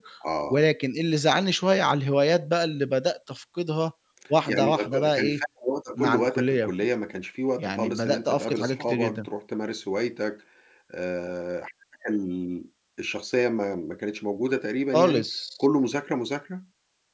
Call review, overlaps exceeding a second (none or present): present